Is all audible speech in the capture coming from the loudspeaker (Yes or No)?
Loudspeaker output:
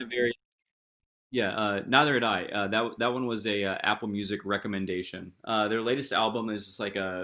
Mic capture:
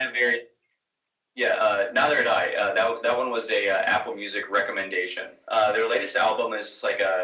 Yes